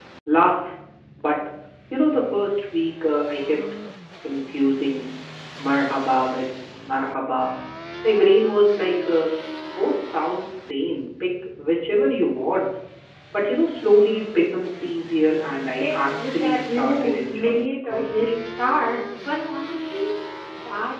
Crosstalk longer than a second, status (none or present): present